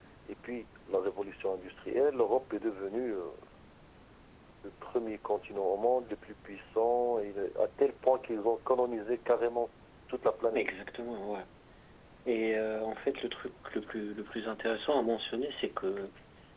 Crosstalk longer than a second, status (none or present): none